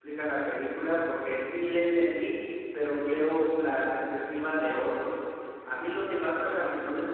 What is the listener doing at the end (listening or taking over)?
listening